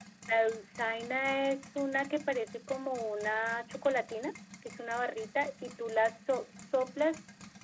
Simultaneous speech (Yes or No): No